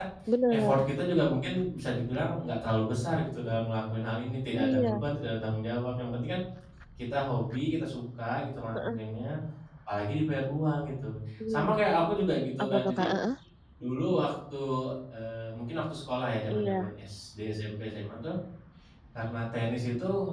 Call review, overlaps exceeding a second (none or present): none